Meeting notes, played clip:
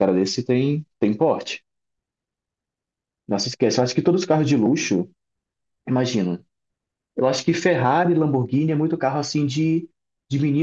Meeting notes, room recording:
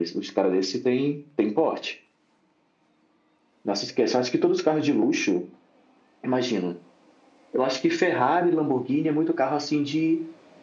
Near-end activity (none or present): none